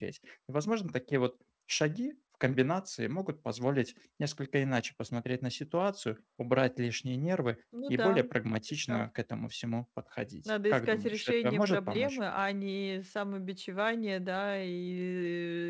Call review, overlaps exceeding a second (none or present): present